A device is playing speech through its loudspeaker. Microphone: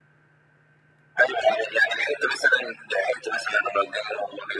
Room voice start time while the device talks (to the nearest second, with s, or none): none